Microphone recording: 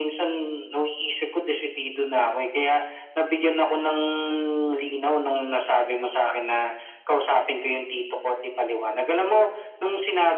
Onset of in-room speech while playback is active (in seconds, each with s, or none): none